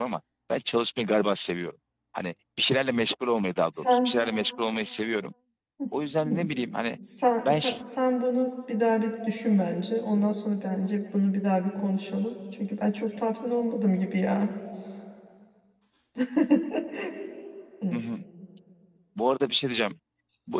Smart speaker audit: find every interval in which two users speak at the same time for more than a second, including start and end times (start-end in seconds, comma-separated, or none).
none